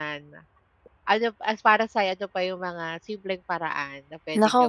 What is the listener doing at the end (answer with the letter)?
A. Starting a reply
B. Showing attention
A